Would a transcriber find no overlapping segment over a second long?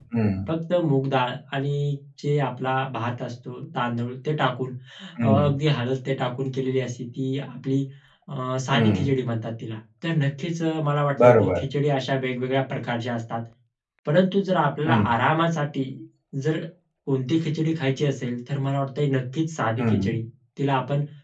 Yes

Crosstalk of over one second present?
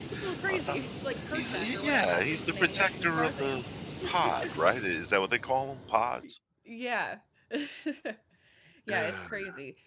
Yes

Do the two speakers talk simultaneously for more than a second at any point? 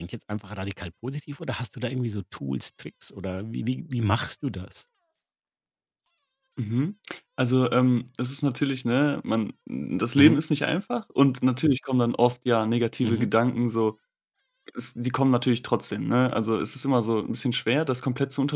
No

